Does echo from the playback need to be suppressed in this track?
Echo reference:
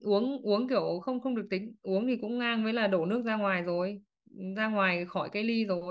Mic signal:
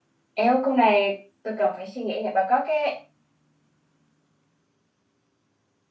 No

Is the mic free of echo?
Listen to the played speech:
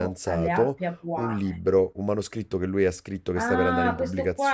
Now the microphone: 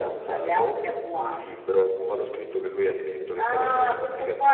No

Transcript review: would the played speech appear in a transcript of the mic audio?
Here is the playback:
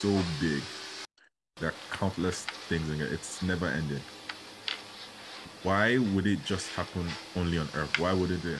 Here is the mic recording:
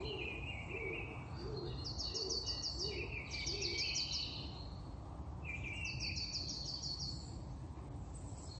No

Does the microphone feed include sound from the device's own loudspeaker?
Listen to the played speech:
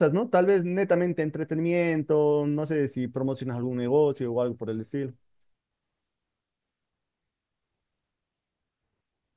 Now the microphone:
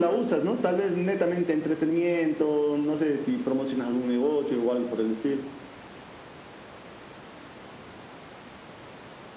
Yes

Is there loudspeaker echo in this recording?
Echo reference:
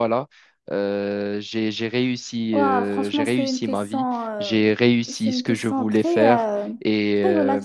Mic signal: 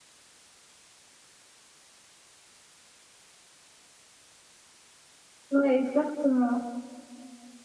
No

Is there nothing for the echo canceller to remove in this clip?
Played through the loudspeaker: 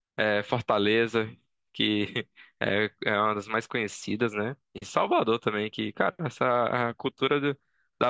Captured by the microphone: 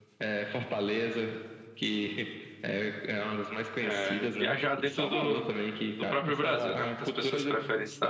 No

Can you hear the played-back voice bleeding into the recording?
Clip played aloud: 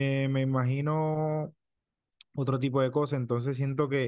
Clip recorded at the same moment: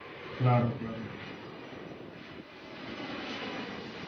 No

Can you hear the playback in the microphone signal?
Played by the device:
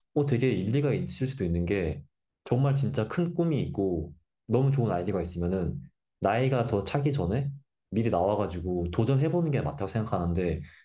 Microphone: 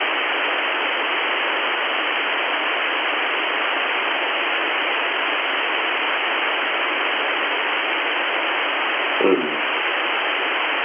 No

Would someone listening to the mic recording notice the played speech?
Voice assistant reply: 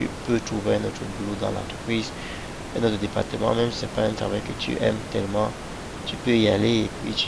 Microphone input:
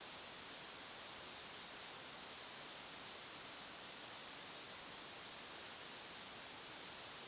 No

